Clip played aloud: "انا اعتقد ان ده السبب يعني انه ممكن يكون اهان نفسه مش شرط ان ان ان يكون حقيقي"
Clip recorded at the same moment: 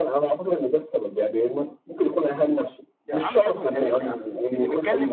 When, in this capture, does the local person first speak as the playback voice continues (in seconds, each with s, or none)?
3.0 s